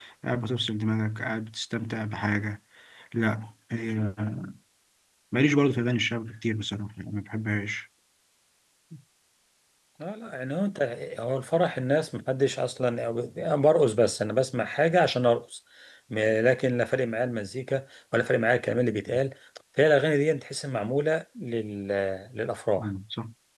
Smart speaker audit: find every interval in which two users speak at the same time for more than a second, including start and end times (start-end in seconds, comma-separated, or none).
none